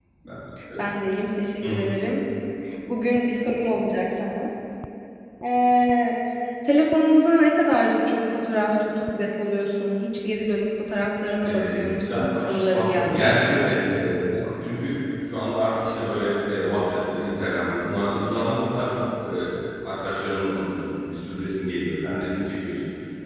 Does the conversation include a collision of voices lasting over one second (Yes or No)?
Yes